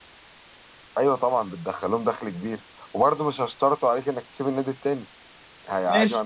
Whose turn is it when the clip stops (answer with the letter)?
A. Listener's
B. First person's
B